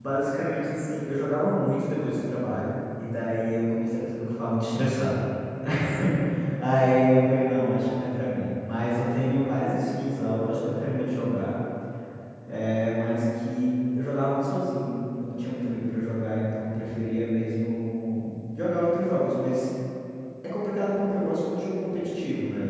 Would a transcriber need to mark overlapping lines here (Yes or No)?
No